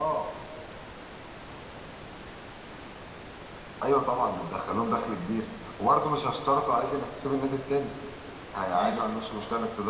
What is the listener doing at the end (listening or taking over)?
listening